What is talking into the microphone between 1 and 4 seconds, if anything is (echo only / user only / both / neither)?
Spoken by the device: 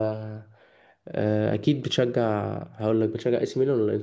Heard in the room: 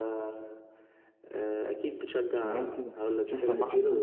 both